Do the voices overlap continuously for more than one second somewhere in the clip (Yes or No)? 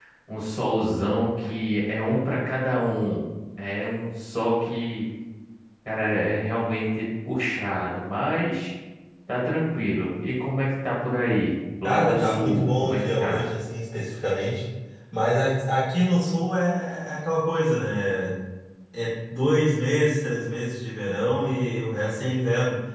Yes